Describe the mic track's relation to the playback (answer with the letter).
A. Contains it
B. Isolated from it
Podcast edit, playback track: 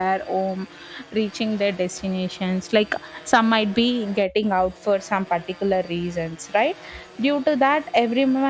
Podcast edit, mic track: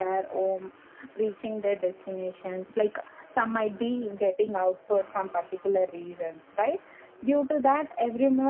A